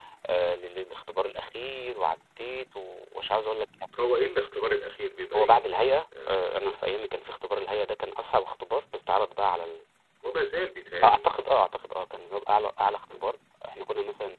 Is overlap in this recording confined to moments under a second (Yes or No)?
Yes